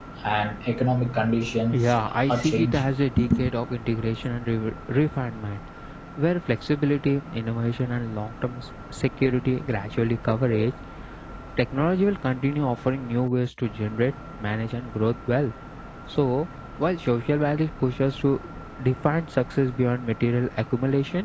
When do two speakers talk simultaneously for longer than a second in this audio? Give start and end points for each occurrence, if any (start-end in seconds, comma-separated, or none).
1.7-3.0